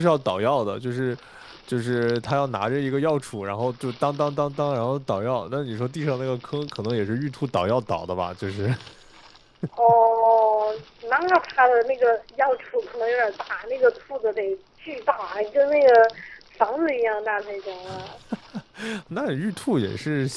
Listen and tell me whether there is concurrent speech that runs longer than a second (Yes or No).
No